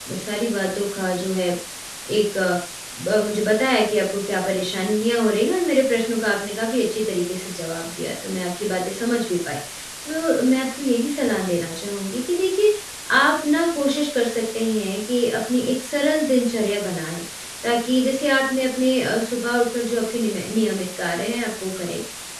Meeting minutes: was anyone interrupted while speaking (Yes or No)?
No